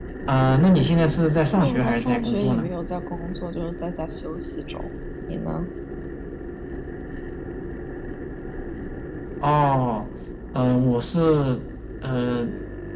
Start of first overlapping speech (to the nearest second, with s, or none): 1 s